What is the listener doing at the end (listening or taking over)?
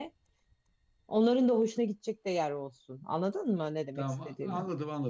taking over